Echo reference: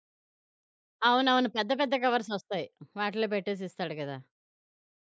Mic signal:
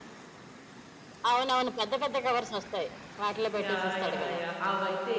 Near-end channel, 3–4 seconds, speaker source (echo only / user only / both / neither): both